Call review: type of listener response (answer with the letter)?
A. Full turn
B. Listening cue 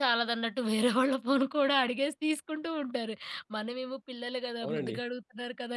B